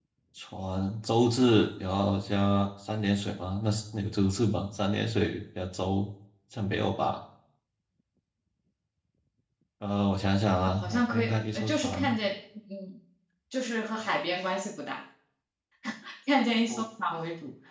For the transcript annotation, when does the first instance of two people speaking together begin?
11 s

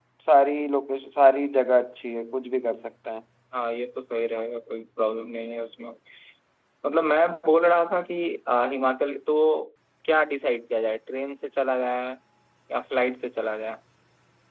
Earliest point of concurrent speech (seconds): none

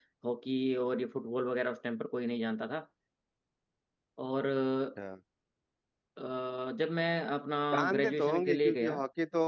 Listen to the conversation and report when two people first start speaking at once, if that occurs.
8 s

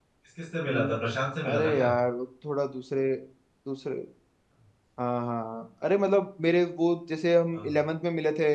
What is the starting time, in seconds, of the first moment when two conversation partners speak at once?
1 s

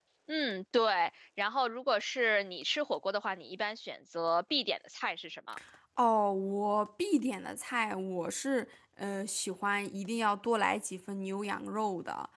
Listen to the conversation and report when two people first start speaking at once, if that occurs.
none

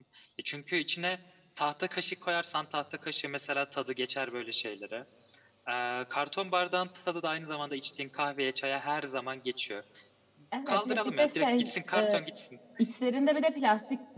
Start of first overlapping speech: 11 s

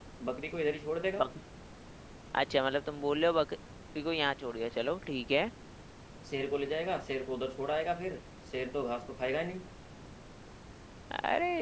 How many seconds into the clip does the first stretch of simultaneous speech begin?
none

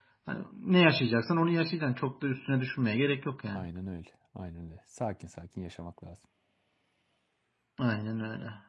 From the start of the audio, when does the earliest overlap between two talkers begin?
none

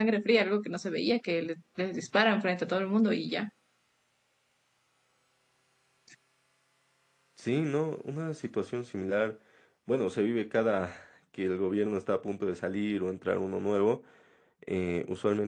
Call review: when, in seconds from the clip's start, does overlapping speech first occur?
none

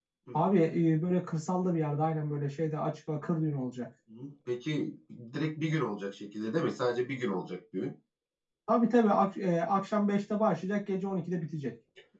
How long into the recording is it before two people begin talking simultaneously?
none

